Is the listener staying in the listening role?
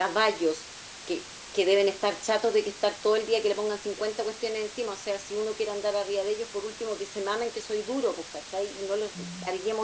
Yes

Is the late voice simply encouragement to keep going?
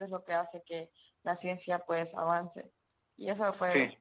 Yes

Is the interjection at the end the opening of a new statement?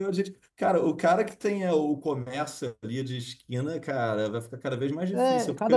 Yes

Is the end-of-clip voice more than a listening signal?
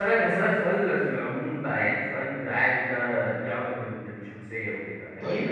No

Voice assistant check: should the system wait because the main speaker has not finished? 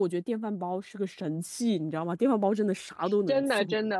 No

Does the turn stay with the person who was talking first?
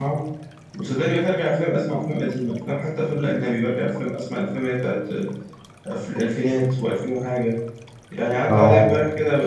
Yes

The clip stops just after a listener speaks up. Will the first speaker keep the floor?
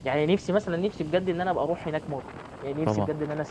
Yes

